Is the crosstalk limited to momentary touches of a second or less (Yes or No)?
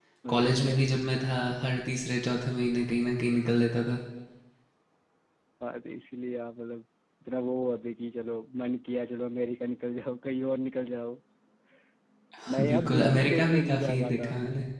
No